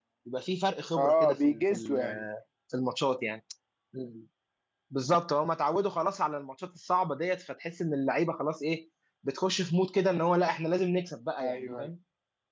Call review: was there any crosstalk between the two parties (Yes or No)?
Yes